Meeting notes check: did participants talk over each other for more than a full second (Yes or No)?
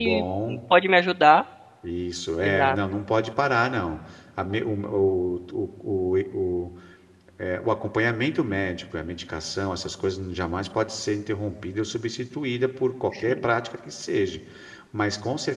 No